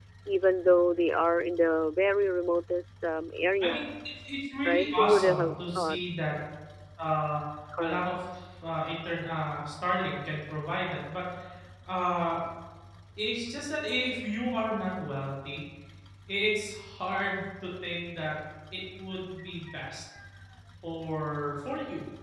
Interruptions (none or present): present